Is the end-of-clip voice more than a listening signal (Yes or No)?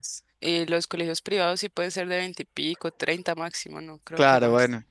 Yes